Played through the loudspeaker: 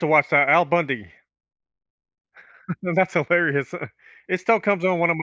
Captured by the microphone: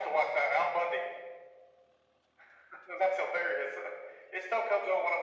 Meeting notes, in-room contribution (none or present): none